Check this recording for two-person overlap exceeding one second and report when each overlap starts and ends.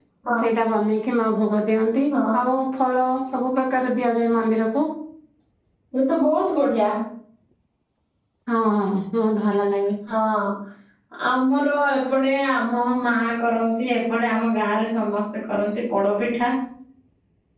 none

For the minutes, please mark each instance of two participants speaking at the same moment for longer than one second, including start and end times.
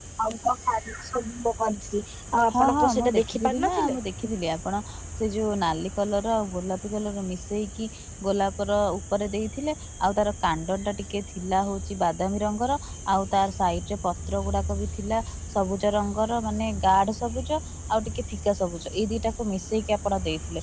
2.5-4.0

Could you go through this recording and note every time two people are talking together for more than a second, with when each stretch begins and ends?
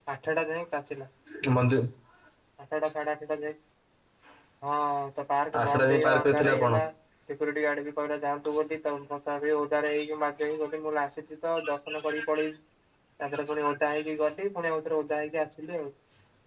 5.6-6.8

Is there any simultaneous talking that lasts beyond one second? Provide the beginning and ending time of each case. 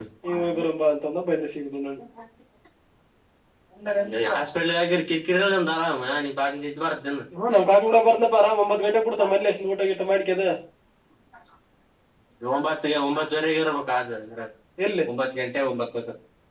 none

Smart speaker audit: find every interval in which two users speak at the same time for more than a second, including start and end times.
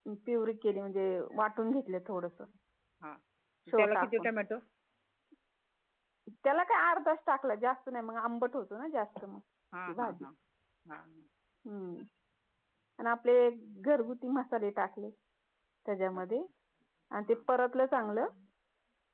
none

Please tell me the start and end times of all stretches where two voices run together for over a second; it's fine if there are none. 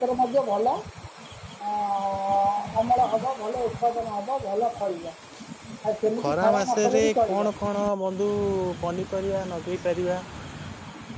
6.2-7.4

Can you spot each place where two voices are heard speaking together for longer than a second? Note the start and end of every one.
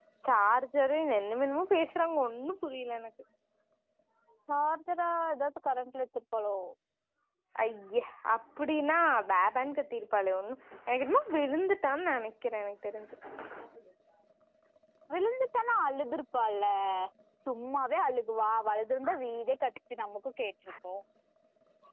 none

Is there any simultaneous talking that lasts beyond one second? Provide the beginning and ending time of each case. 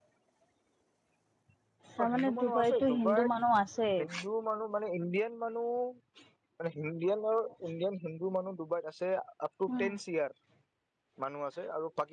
2.0-3.3

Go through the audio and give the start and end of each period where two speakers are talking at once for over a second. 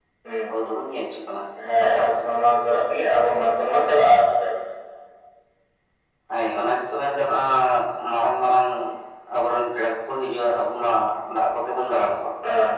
none

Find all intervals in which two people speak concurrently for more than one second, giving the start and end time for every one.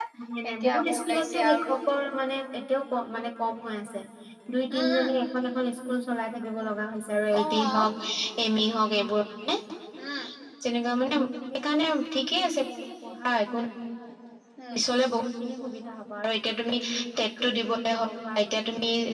0.5-1.8

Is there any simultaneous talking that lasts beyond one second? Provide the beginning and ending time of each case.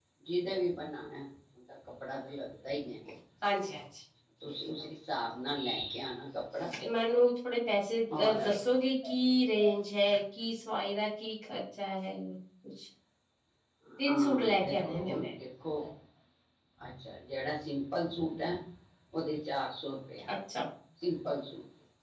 14.1-15.3

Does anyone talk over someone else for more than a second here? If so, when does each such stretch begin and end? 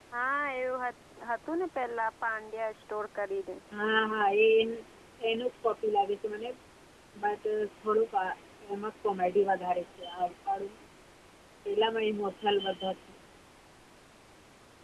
none

